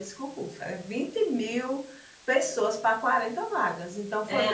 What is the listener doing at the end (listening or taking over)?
taking over